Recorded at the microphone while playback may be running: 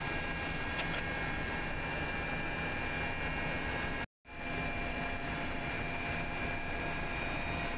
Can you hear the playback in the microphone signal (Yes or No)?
No